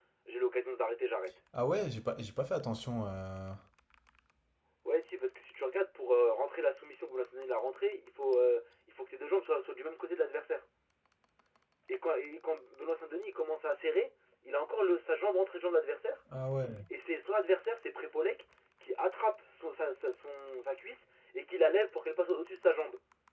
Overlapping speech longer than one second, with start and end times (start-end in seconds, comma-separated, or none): none